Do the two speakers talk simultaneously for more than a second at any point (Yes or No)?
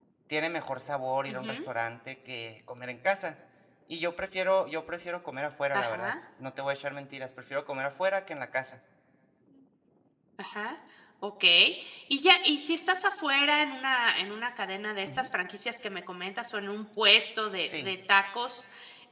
No